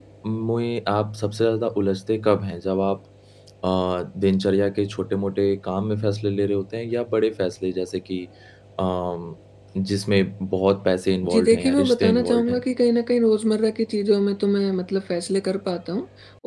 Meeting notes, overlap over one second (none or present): present